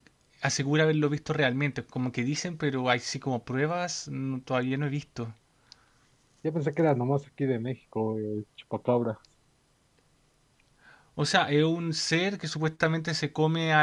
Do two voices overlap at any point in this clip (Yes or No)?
No